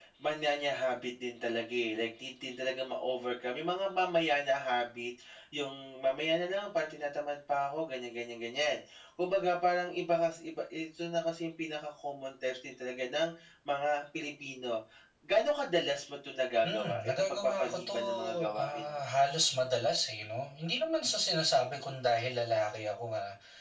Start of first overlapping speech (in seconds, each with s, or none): 16.6 s